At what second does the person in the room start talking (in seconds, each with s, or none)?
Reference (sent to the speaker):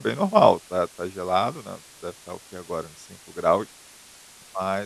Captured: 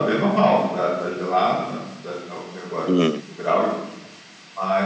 2.8 s